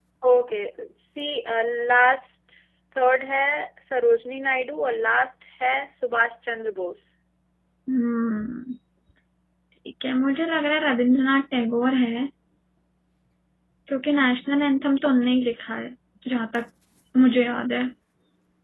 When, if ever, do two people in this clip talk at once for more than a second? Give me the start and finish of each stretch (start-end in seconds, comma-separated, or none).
none